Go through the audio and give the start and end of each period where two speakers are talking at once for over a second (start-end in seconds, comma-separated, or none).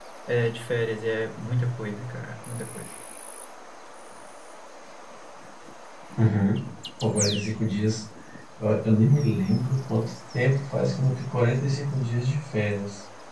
none